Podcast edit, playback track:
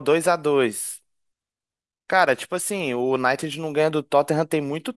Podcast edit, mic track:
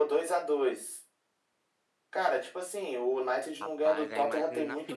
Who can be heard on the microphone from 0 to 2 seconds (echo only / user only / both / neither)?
echo only